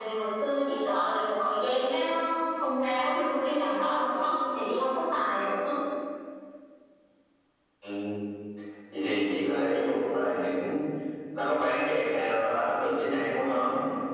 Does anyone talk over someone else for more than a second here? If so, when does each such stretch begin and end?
none

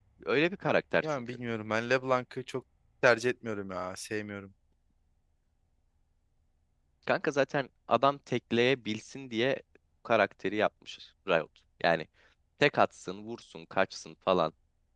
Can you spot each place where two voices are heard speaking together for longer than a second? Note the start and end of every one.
none

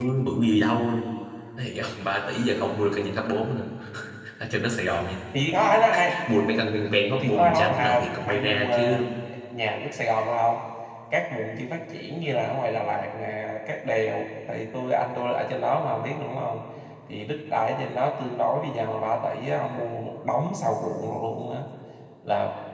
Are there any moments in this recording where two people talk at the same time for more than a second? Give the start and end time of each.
7.2-9.0

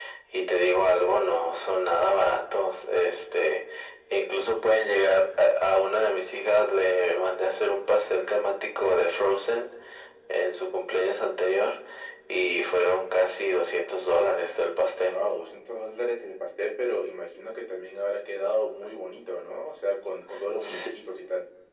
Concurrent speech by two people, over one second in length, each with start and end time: none

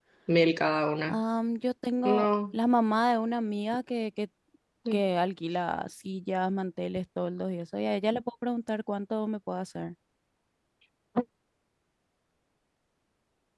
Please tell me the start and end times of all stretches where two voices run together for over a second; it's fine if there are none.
none

